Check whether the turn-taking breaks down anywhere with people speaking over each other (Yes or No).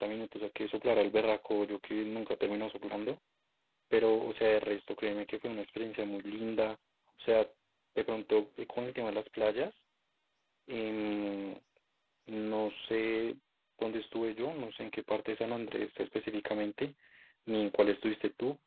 No